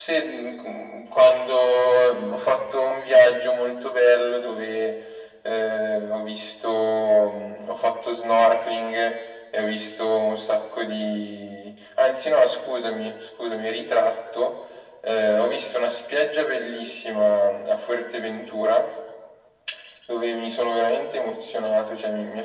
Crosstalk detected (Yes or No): No